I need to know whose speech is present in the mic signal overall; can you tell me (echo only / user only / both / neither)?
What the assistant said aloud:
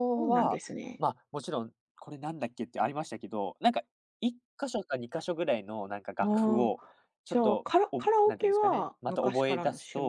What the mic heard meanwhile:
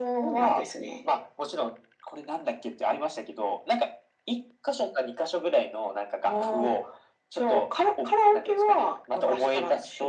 echo only